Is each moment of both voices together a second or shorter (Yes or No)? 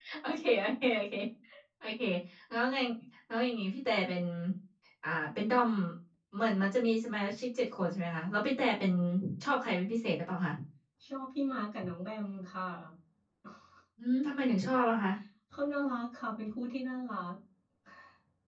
Yes